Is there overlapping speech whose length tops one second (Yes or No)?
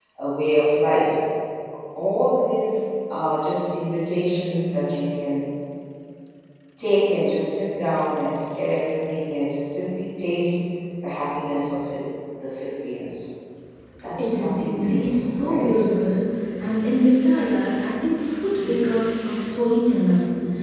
Yes